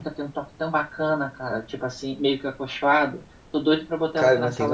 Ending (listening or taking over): taking over